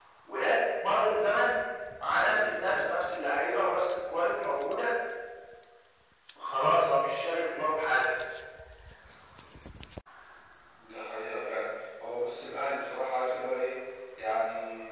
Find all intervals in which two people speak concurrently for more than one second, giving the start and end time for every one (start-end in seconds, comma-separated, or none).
none